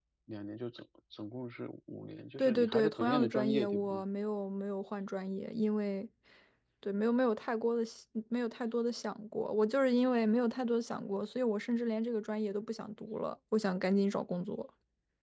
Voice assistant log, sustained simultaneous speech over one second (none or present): present